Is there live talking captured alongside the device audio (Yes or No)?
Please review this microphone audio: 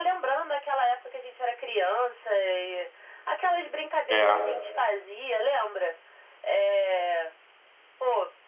Yes